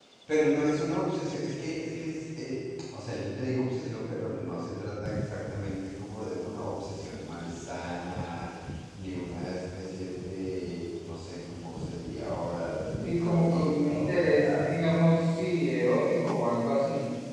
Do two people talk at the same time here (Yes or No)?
Yes